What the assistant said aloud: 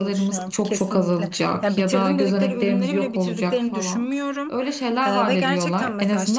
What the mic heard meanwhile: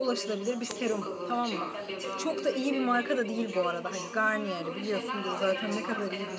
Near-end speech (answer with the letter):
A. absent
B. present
B